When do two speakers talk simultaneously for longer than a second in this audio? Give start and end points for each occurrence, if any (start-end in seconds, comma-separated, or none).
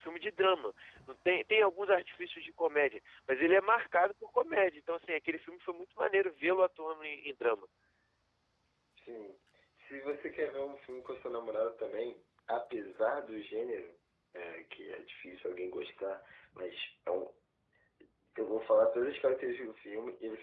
none